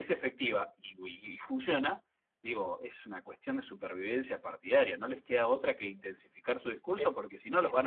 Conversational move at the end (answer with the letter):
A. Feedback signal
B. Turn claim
B